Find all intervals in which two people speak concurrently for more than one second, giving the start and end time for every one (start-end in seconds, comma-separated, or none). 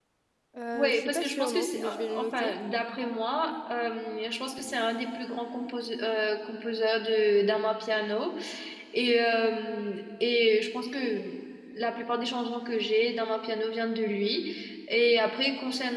0.7-2.5